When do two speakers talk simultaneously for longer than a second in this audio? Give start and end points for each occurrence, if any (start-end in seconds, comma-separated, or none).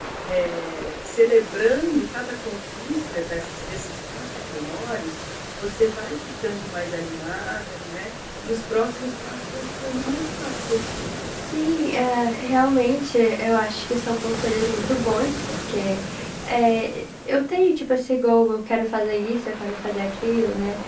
none